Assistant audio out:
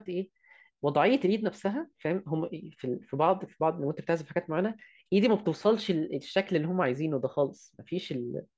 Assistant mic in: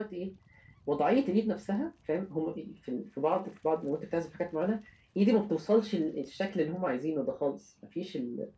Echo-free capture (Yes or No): No